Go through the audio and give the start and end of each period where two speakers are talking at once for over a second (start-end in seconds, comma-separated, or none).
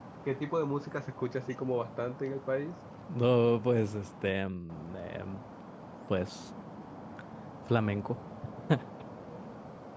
none